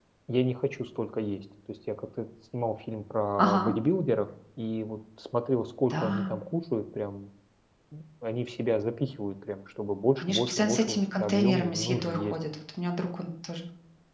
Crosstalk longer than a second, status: present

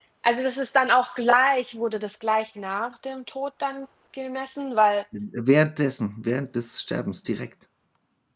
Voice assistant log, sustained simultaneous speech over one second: none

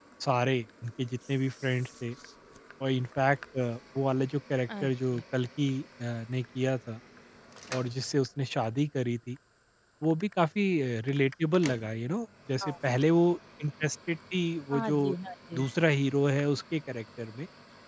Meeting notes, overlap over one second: none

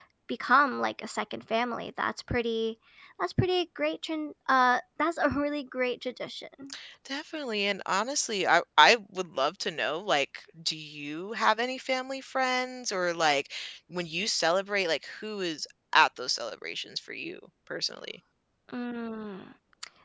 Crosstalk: none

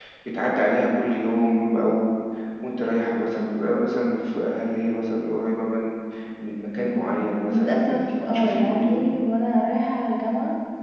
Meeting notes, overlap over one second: present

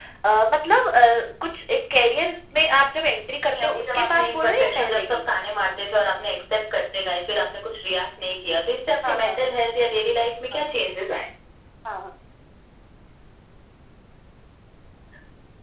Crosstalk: present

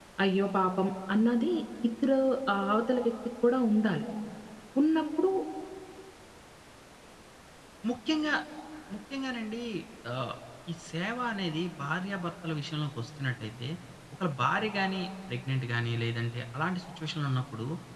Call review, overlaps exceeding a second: none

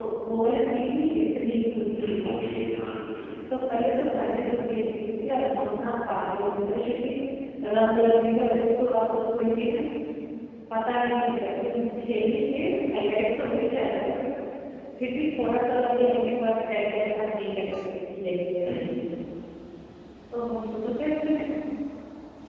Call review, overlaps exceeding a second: none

